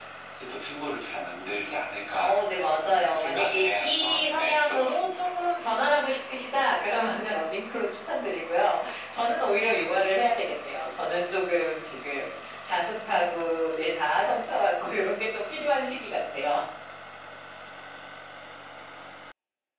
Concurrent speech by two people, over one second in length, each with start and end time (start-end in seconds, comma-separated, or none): 2.2-5.1